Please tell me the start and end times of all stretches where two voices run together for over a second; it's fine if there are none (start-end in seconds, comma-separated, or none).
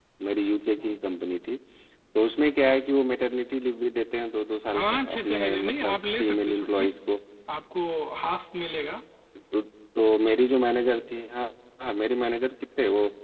4.7-6.9